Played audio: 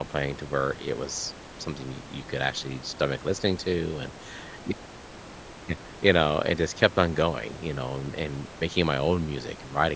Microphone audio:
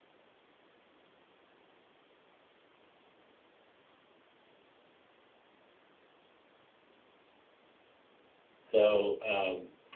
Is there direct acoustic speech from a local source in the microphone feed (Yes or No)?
Yes